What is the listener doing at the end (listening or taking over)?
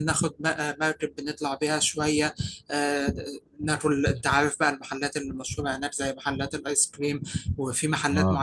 listening